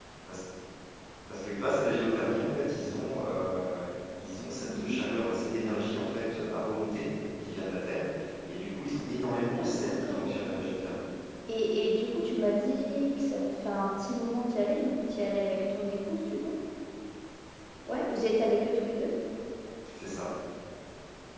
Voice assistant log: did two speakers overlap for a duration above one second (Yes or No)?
Yes